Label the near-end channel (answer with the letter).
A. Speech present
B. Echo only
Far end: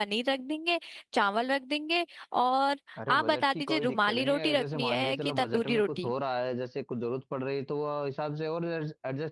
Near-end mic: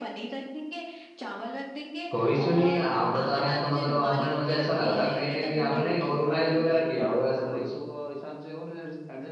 A